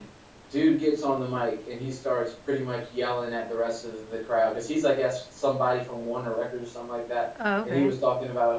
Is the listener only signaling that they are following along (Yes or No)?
Yes